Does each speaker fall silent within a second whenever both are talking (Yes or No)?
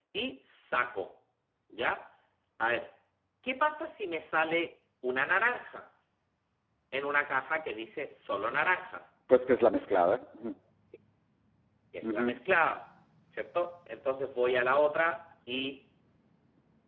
Yes